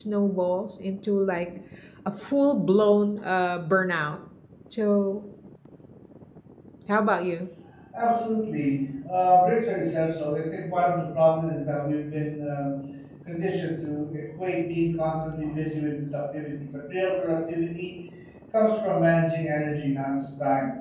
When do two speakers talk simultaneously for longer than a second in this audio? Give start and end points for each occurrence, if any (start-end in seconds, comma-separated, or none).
none